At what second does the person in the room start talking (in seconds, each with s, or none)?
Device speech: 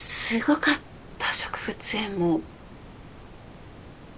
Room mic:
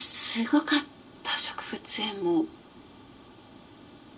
none